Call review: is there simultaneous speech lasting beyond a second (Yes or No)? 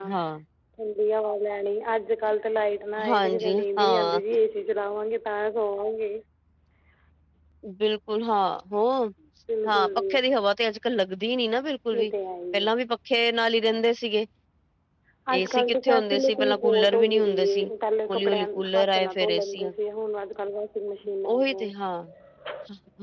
Yes